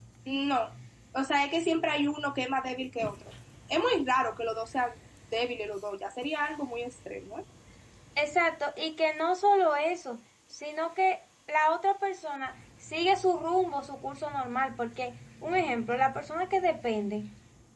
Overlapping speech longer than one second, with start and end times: none

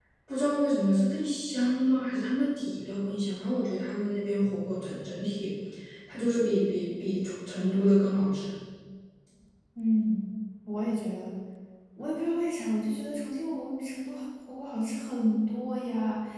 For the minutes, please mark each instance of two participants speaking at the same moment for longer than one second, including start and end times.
none

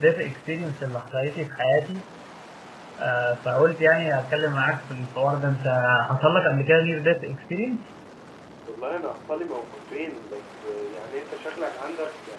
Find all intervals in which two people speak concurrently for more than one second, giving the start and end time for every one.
none

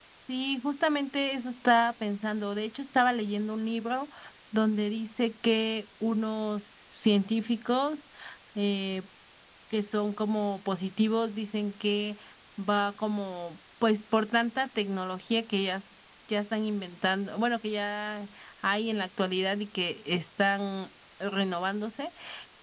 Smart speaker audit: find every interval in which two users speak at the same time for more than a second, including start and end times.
none

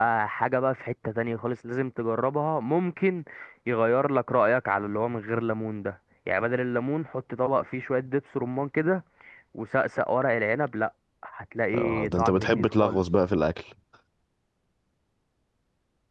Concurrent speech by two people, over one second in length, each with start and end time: 11.7-13.0

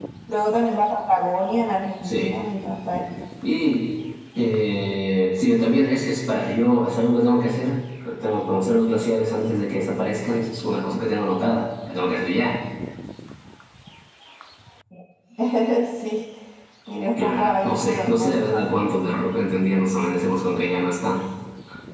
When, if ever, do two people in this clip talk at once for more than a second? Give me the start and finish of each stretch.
17.1-18.7

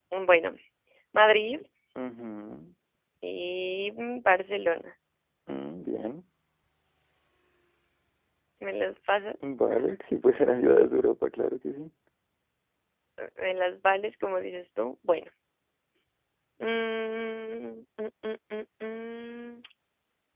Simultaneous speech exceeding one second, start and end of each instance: none

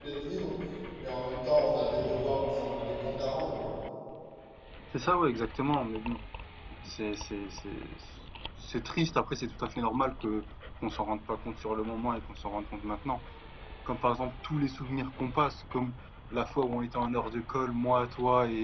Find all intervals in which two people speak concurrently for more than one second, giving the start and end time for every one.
none

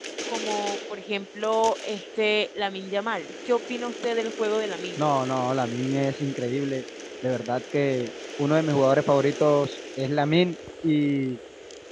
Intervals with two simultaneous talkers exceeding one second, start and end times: none

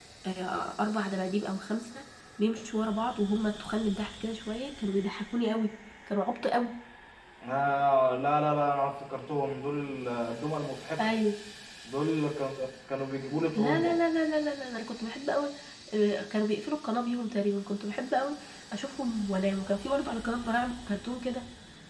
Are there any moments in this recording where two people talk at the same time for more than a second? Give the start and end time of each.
none

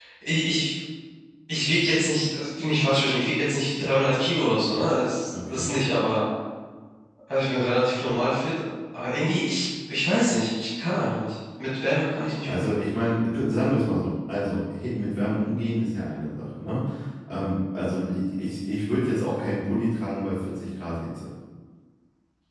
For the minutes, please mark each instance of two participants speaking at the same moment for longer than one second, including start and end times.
none

